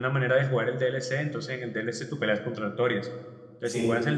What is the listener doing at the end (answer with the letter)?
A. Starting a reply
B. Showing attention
B